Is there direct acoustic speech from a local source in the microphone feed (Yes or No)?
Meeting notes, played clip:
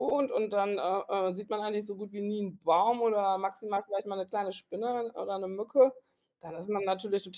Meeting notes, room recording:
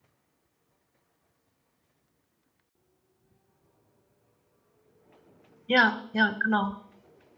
Yes